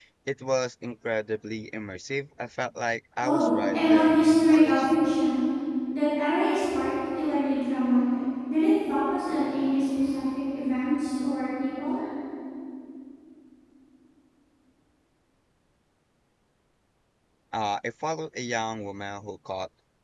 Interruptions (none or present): present